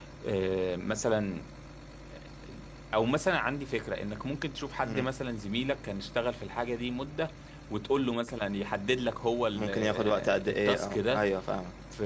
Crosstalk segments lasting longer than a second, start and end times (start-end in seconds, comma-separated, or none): 9.5-11.3